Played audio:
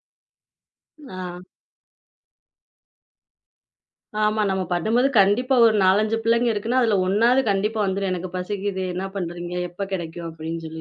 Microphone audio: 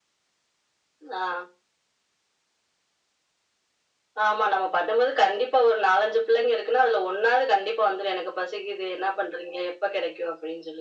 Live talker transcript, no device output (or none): none